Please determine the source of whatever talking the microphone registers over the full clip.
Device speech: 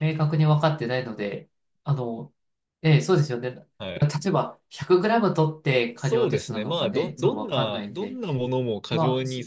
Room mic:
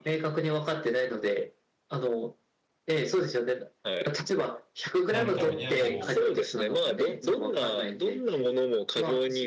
both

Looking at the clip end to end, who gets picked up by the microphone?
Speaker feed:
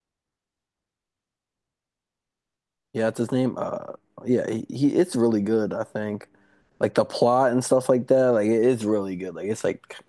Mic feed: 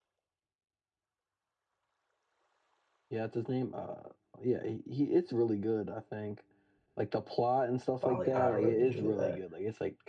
both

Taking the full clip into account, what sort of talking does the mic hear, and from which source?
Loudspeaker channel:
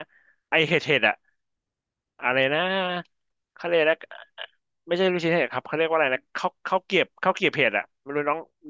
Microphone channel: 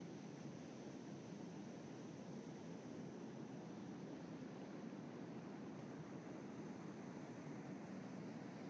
neither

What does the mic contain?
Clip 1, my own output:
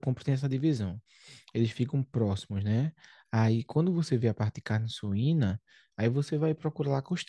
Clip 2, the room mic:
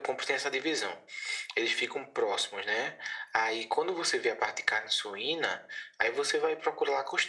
echo only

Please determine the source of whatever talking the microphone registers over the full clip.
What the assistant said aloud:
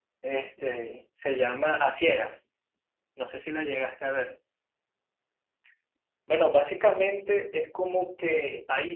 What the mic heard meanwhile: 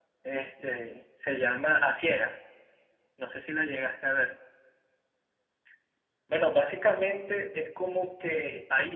echo only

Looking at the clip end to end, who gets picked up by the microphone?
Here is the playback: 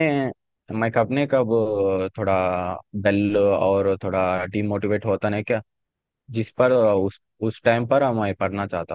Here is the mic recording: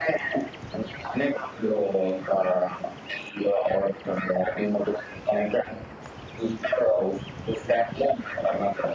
echo only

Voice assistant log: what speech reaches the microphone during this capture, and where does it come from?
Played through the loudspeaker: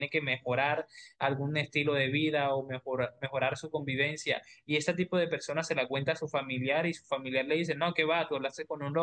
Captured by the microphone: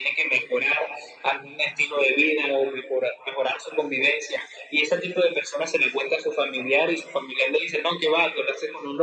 echo only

